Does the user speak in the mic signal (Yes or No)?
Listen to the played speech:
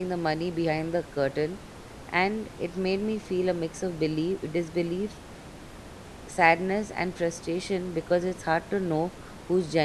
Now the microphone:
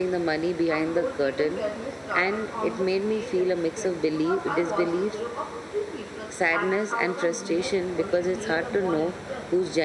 Yes